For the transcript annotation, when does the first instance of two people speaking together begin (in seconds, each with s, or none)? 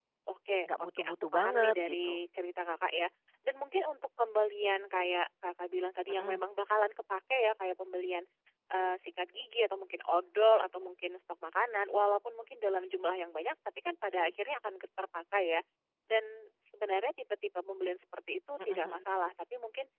0.7 s